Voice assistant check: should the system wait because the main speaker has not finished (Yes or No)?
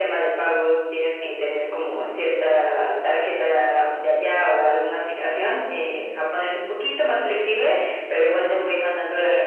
Yes